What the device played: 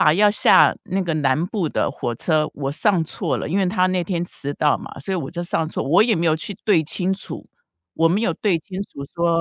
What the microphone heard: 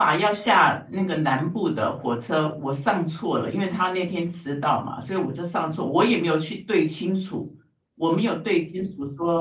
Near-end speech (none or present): none